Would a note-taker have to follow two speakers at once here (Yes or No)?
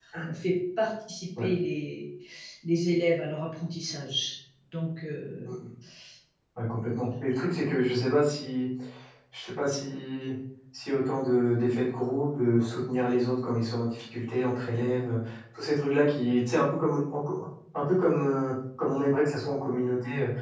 No